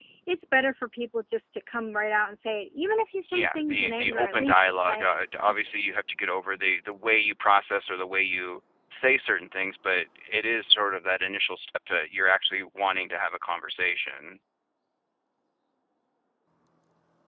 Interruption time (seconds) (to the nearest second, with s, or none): 3 s